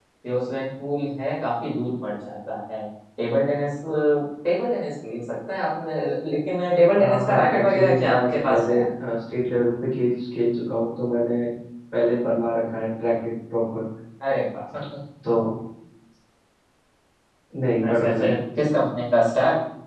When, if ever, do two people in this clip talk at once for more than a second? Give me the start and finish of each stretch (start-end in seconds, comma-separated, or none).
7.0-8.7